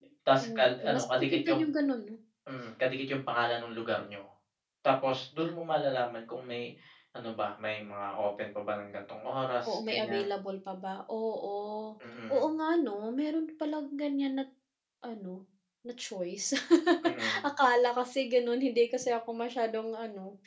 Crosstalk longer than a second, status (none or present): present